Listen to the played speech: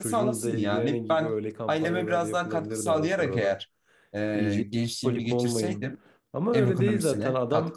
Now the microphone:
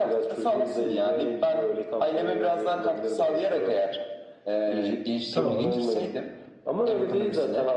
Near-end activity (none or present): present